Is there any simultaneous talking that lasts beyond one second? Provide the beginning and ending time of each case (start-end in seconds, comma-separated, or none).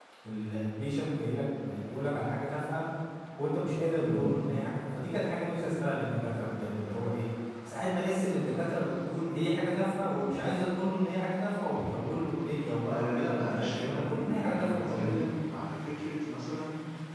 12.9-15.2